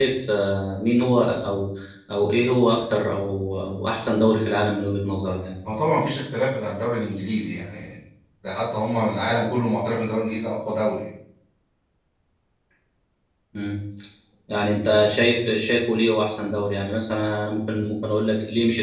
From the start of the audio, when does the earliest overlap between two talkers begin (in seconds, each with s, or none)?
none